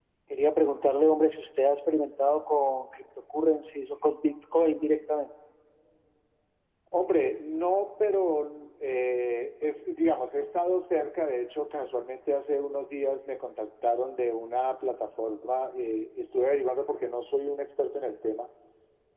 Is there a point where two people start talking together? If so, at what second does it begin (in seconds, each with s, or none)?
none